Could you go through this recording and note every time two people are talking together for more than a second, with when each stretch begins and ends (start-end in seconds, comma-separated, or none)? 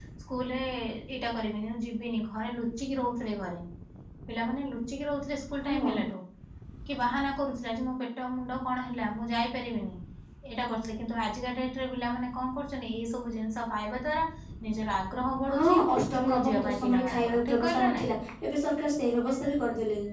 16.2-18.1